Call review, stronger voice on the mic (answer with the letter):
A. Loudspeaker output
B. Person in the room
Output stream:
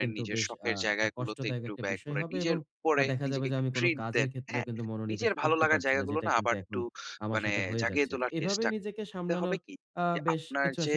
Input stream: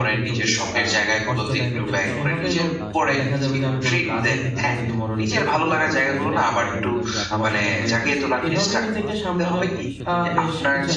A